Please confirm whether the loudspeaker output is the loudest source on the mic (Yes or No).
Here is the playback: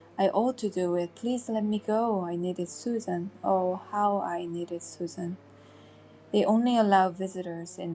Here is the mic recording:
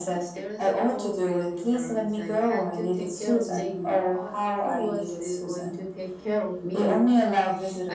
Yes